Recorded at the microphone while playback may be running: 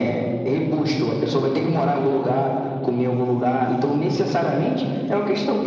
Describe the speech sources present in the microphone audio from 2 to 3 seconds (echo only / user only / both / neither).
echo only